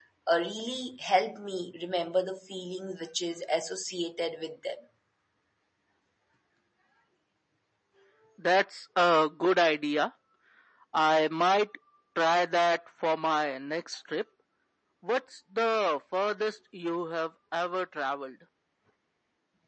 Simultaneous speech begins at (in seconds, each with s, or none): none